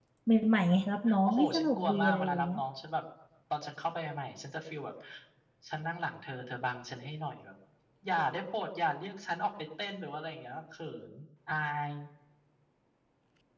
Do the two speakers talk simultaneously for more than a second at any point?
Yes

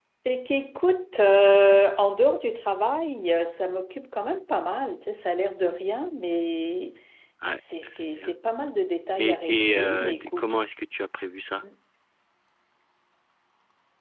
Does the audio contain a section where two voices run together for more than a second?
Yes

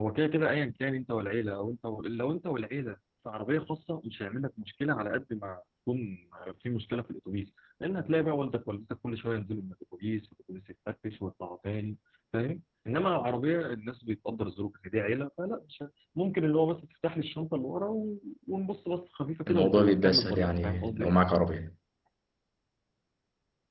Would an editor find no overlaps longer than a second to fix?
No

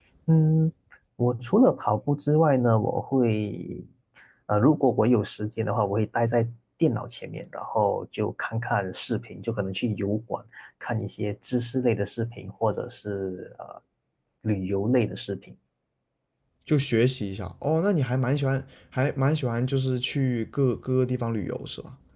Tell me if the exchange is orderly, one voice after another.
Yes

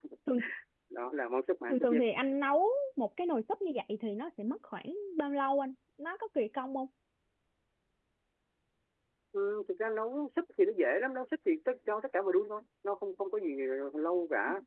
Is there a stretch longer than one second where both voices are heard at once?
No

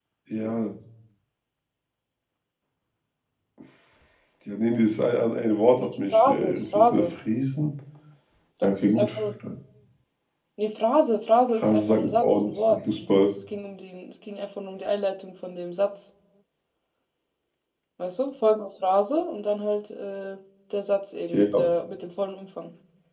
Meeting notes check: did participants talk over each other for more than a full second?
Yes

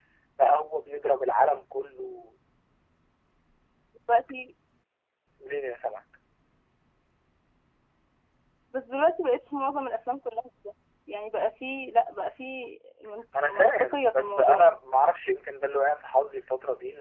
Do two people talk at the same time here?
Yes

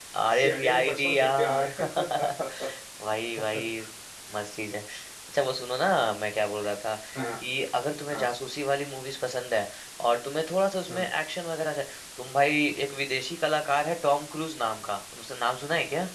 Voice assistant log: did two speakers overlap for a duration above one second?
Yes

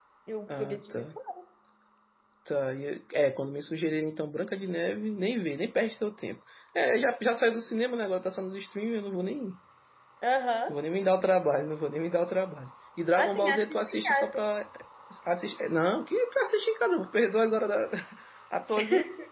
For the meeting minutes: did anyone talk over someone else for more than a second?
Yes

